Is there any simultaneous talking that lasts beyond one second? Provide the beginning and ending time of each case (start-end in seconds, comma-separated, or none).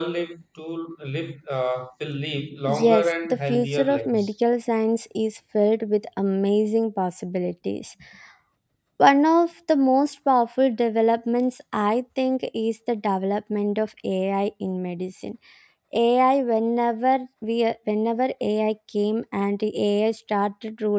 2.7-4.3